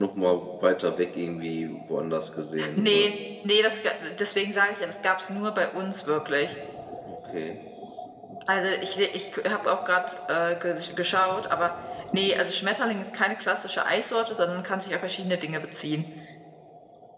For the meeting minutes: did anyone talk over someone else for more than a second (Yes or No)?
No